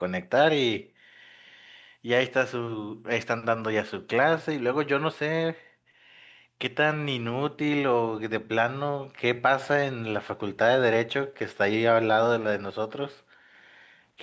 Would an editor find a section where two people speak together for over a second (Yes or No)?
No